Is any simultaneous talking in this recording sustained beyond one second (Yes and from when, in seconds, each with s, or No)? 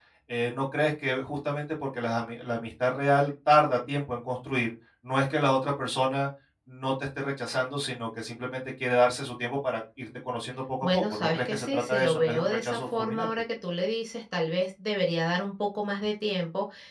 Yes, from 10.8 s